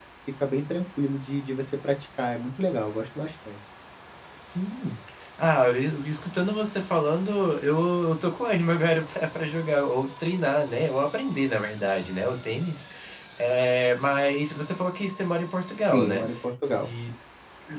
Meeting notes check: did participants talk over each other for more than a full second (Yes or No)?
No